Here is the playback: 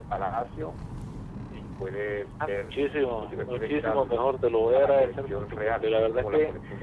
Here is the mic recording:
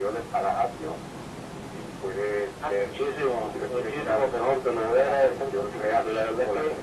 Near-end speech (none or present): none